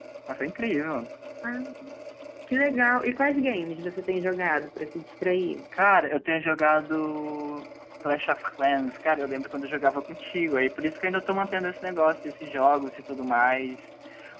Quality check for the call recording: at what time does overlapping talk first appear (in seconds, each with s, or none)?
none